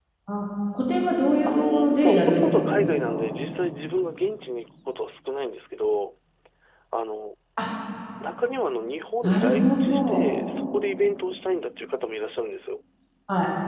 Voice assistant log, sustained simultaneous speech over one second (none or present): present